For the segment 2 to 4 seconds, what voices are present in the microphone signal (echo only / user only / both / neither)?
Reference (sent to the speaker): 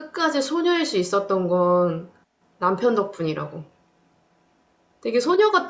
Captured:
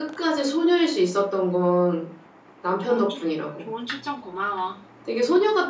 both